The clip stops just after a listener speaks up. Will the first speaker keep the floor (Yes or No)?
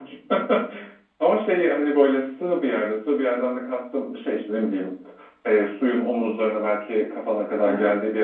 Yes